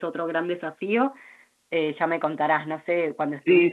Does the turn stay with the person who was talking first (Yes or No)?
No